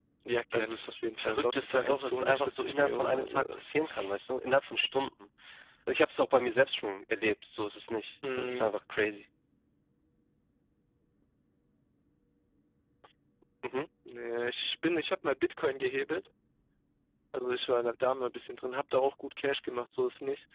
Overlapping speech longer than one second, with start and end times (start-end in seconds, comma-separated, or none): 0.5-4.1